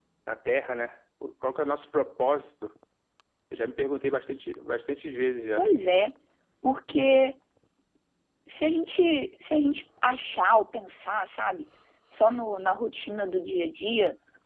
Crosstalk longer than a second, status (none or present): none